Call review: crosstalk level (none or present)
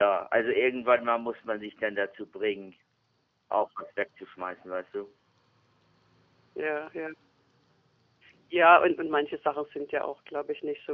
none